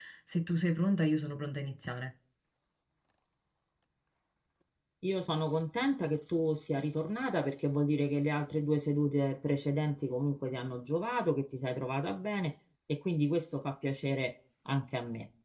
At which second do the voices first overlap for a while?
none

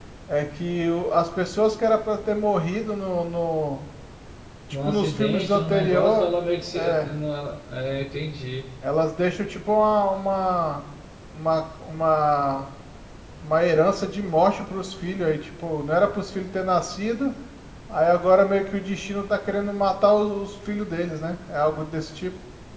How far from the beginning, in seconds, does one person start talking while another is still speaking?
4.8 s

